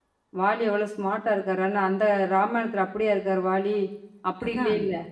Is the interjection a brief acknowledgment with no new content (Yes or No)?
Yes